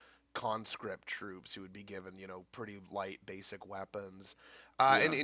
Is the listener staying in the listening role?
Yes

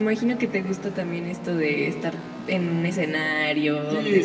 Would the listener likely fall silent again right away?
No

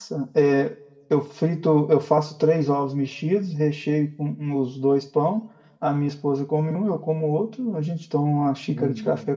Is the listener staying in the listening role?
Yes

